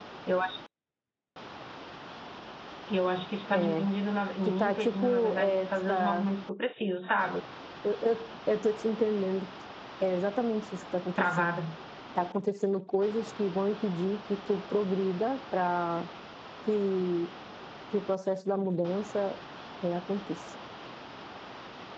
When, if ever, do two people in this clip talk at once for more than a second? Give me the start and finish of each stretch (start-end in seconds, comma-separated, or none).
4.4-6.3